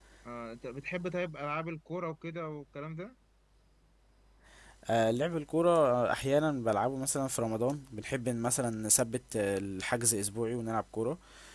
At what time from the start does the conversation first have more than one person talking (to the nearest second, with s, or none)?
none